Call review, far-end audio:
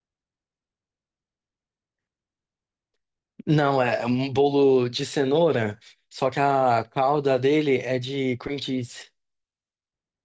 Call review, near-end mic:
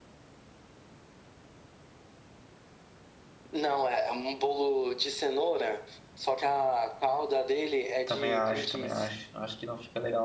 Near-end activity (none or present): present